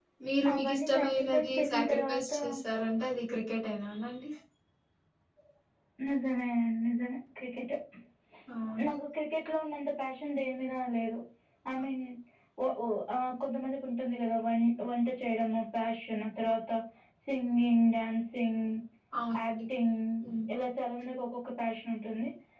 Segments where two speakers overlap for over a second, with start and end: 0.5-2.3

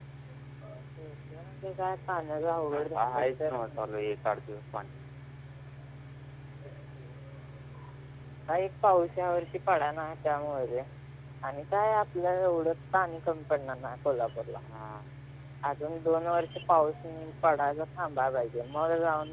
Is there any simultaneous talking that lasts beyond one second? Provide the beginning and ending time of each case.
2.7-3.9

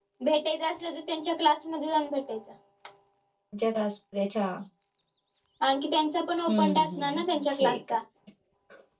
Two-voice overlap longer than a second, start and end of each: 6.5-8.0

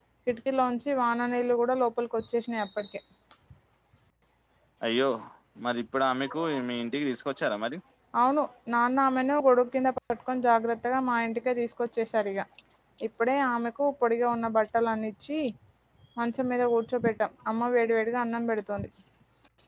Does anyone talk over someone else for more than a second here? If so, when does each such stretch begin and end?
none

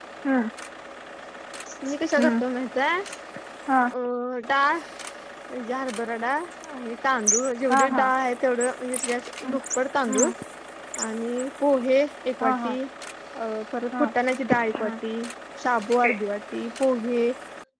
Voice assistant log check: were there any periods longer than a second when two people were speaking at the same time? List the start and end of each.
none

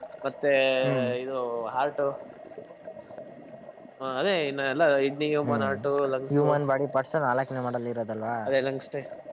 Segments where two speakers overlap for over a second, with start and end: none

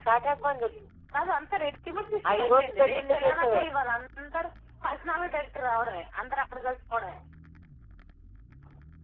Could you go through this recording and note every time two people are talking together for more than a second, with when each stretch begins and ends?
2.4-3.7

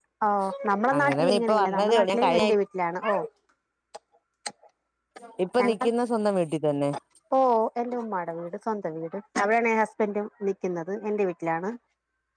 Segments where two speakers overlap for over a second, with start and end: 1.0-2.5

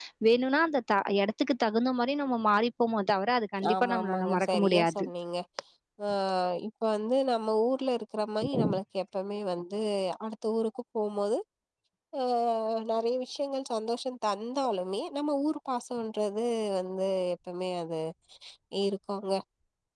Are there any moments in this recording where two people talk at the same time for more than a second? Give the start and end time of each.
3.7-5.0

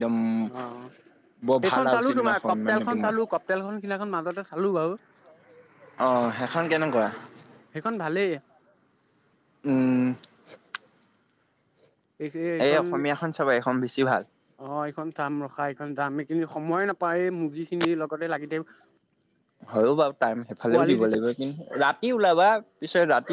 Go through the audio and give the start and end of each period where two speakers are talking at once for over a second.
1.7-3.1

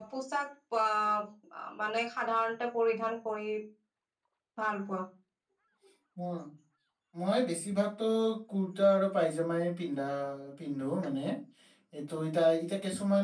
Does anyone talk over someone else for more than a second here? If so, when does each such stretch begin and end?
none

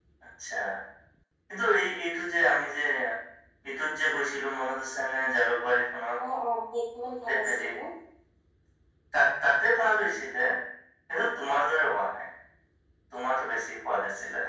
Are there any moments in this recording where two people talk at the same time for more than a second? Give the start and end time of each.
none

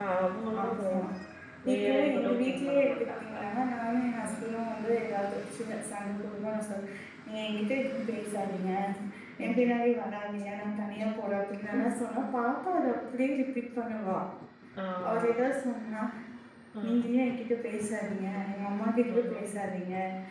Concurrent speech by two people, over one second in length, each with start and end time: 1.7-3.3

